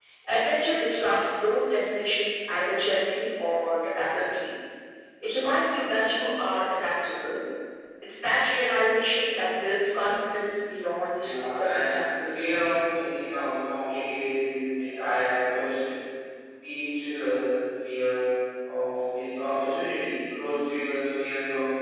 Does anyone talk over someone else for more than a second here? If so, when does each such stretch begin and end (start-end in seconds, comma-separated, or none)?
11.1-12.5